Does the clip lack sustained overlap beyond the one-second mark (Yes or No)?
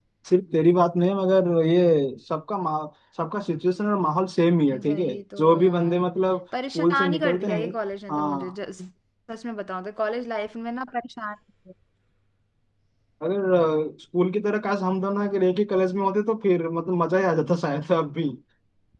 No